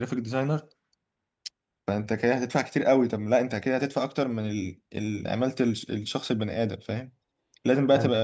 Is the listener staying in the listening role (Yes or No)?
Yes